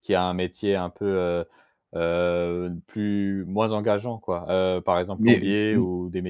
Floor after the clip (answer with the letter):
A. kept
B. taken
A